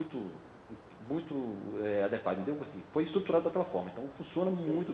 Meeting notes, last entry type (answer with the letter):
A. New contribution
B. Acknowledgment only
B